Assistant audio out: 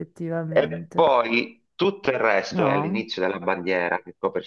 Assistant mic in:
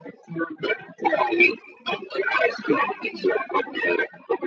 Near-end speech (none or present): none